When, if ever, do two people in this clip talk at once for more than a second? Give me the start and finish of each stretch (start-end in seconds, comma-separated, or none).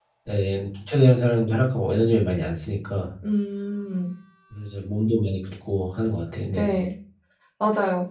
none